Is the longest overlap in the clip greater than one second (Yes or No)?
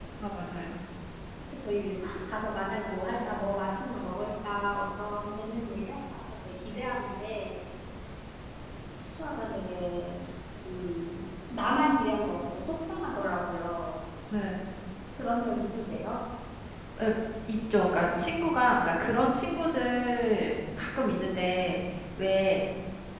No